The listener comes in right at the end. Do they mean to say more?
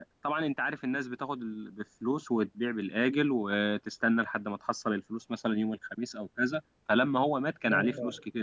No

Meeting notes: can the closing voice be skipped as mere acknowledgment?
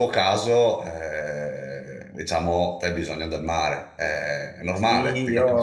No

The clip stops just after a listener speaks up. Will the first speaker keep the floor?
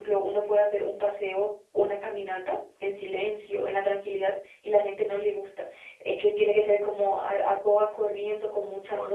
No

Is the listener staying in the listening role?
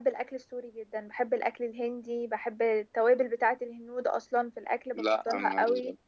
No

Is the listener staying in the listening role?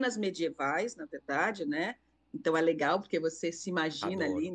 Yes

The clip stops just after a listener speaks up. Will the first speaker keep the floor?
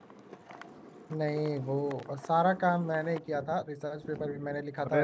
No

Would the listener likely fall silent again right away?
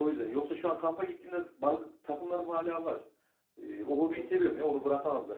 Yes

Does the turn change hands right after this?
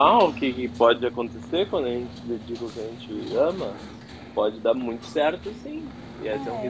No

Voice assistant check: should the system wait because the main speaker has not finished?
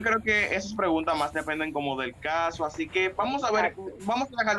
Yes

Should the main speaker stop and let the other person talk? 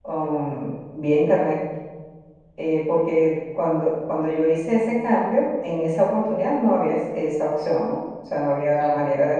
No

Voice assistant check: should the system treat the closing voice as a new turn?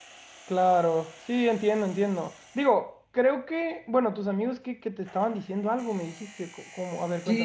Yes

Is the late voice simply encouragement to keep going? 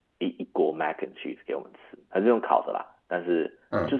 Yes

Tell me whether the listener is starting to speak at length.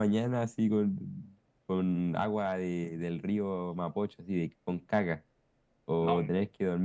No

